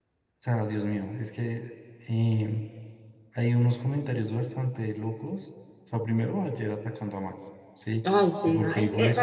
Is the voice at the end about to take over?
Yes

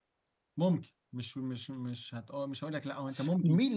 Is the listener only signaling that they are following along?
No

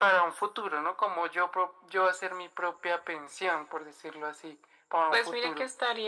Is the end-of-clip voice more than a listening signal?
Yes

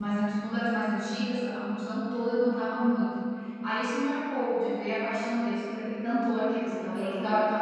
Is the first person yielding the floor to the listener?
No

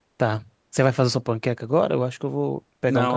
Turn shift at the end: Yes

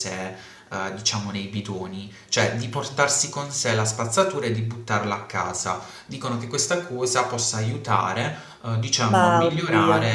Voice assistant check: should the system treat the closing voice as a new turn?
No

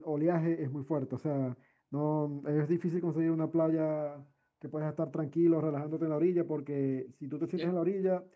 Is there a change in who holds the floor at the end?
No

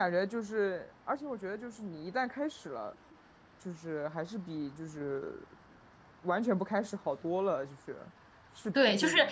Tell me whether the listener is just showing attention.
No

